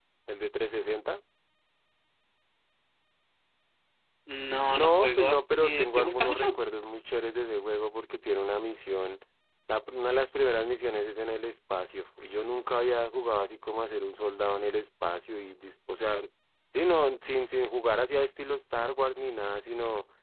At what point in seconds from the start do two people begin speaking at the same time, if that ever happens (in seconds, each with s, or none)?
4.7 s